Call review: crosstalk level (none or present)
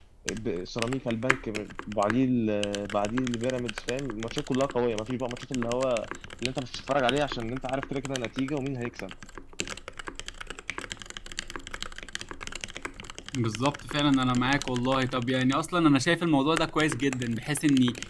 none